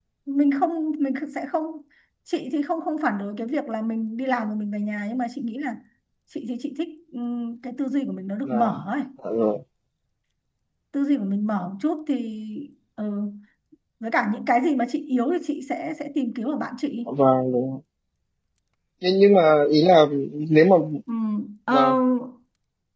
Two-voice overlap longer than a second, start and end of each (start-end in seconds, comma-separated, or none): none